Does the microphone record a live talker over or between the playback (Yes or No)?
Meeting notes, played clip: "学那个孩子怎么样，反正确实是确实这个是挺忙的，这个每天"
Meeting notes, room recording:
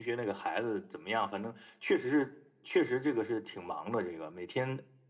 No